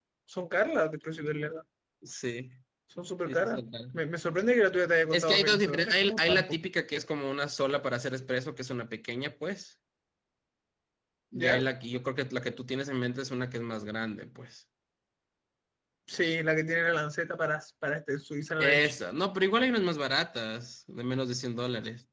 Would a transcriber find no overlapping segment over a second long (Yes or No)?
No